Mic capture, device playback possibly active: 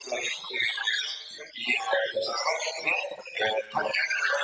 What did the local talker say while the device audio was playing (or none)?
none